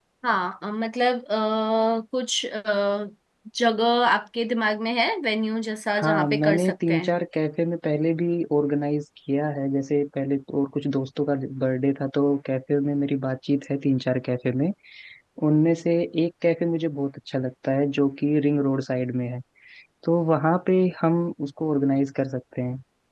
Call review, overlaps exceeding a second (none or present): present